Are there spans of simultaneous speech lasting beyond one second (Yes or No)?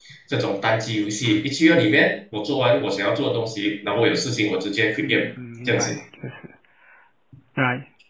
No